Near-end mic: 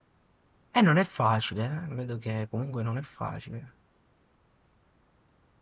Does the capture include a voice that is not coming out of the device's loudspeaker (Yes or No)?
Yes